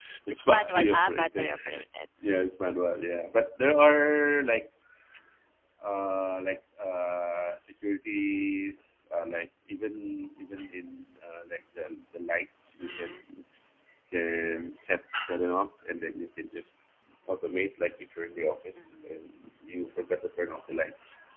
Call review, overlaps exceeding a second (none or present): present